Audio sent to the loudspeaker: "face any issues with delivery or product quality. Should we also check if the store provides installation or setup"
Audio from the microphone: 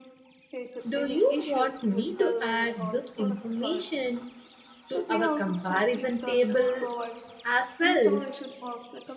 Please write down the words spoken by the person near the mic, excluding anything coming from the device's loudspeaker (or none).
Do you want me to add this information to our comparison table as well?